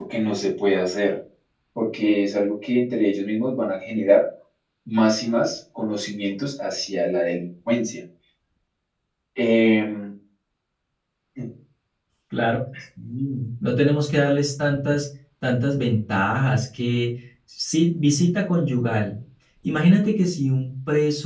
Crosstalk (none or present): none